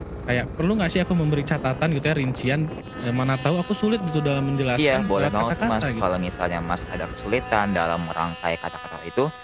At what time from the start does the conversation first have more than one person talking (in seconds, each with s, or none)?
4.8 s